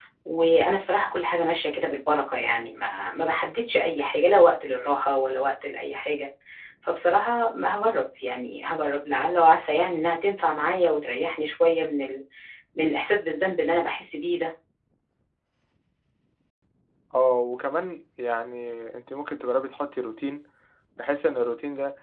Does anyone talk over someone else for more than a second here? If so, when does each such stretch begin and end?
none

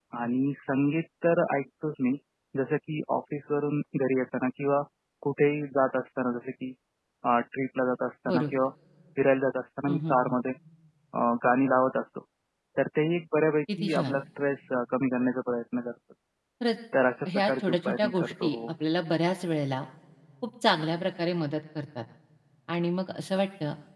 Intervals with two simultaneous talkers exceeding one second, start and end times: 17.4-18.7

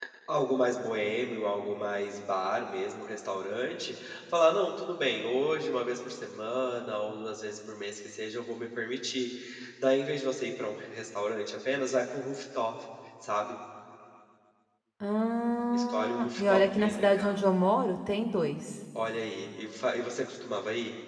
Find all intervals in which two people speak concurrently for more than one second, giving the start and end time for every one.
15.7-17.4

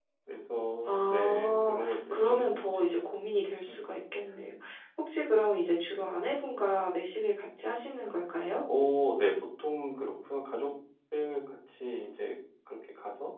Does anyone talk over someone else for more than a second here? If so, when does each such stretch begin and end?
0.8-2.9

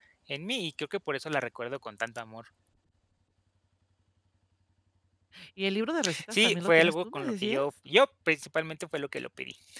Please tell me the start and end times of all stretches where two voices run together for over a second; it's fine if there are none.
6.3-7.6

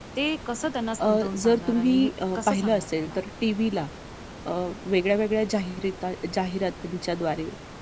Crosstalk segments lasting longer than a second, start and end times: 1.1-3.2

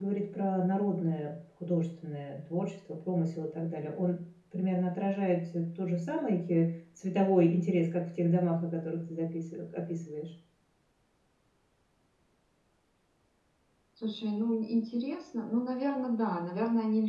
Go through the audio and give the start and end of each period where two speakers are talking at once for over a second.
none

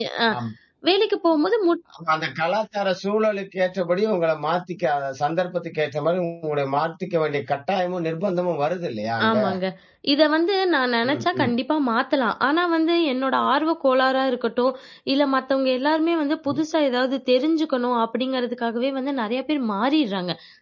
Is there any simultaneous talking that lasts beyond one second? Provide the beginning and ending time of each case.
none

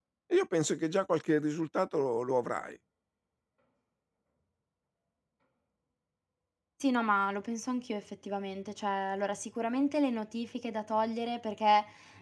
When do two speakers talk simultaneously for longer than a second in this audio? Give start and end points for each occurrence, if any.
none

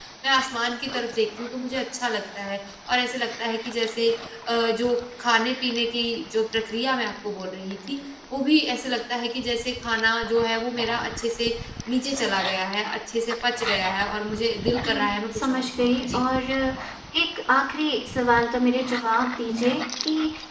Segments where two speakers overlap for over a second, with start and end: 14.8-16.3

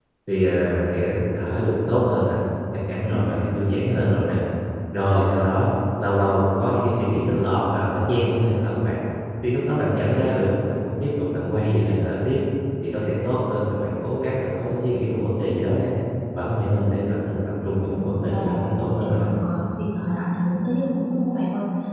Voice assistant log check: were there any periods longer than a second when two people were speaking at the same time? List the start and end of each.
17.7-19.3

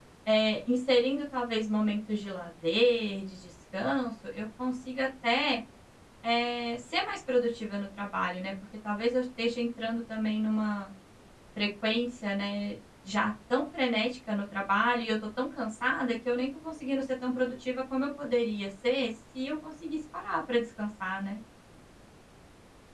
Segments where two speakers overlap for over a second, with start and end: none

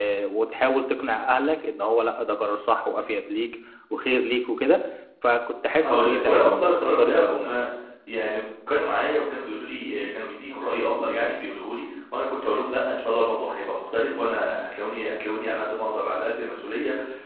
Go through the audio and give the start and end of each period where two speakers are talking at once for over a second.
5.8-7.5

